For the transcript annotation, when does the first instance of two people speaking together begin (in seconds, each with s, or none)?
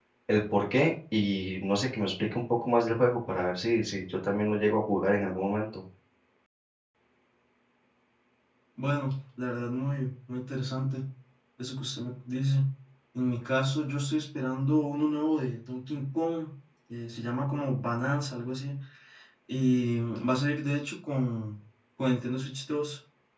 none